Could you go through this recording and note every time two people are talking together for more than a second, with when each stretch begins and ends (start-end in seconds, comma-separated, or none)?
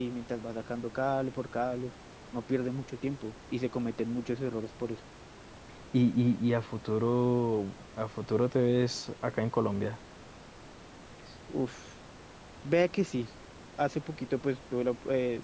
none